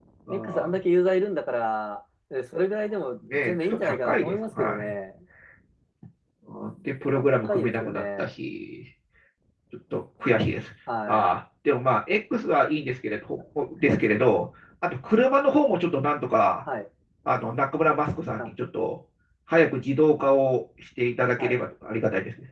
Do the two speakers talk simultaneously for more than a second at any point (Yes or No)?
Yes